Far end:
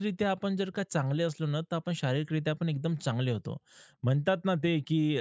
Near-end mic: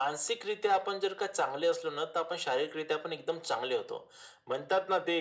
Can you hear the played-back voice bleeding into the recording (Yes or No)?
Yes